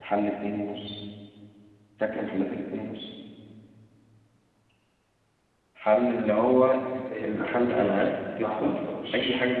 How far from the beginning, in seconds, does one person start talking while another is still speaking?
7.2 s

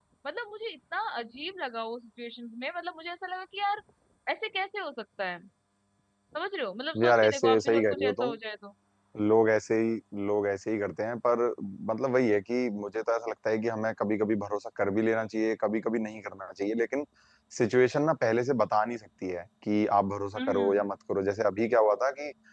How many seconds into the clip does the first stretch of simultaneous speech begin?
7.0 s

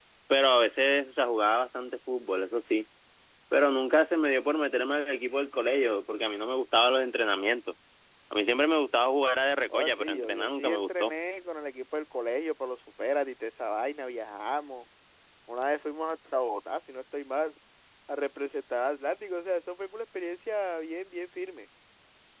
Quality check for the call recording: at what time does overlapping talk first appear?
9.7 s

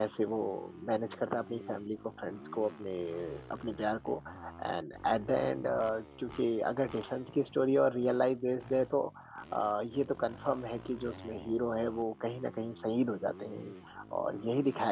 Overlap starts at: none

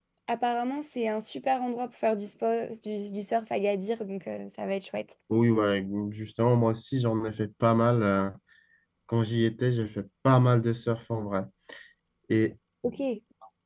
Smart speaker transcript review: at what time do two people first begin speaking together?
none

